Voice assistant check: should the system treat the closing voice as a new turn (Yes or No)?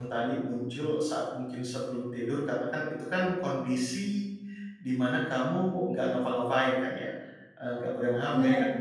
No